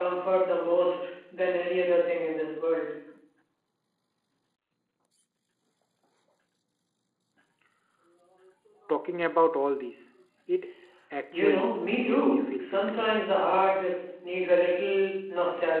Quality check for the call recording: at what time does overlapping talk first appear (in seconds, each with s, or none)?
11.3 s